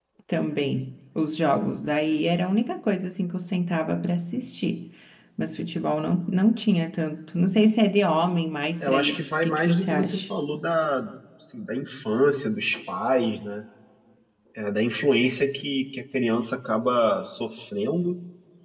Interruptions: present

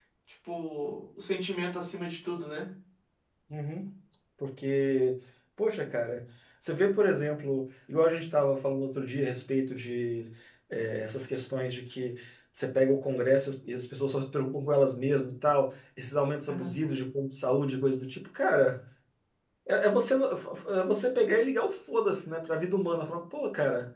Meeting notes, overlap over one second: none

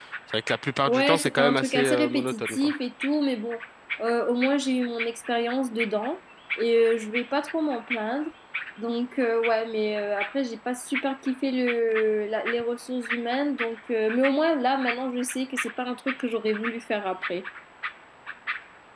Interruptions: present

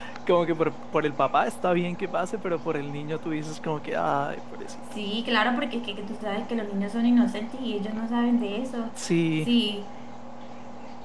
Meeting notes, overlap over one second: none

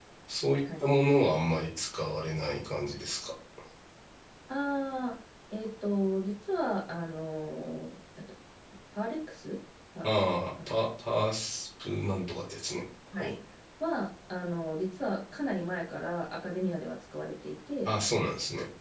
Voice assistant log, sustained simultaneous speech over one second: none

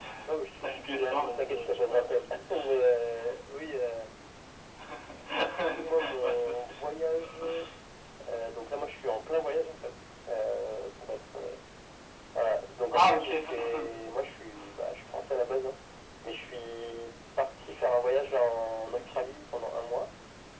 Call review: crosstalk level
present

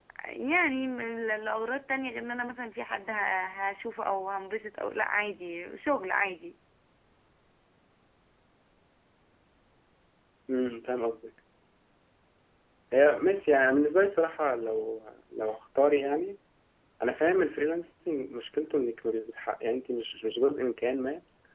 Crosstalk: none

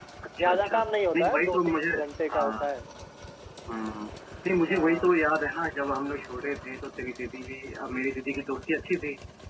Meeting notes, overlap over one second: present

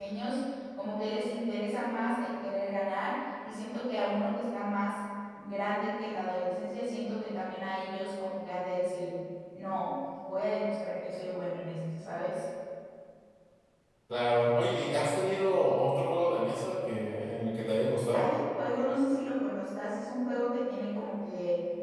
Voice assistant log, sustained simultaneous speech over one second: none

